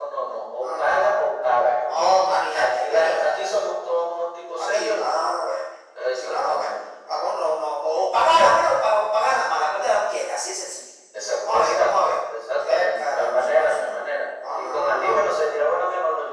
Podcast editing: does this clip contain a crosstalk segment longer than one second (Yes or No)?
Yes